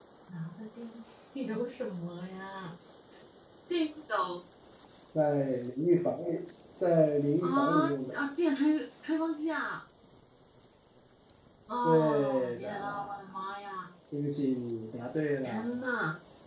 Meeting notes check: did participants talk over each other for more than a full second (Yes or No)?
Yes